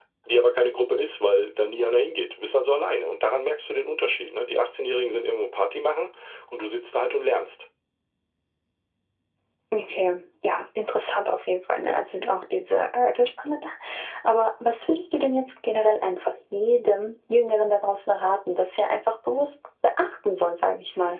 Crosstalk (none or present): none